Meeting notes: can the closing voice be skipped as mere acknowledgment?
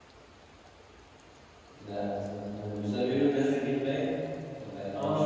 No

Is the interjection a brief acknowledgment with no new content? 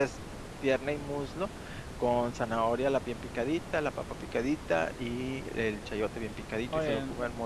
Yes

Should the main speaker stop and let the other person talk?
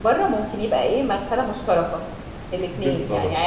No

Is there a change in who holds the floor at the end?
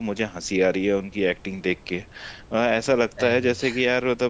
No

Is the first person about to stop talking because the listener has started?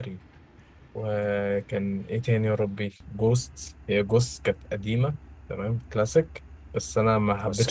No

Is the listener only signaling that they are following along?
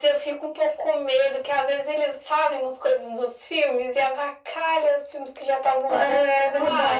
No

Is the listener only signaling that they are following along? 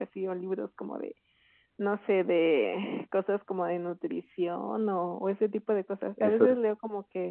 Yes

